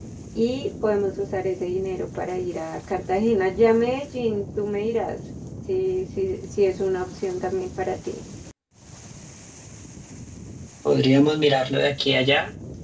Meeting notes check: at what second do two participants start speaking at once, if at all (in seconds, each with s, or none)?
none